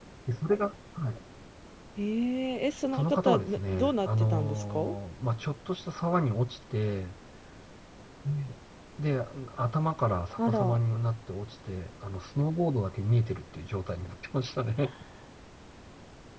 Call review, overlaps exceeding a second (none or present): present